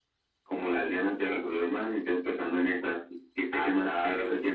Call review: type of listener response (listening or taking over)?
taking over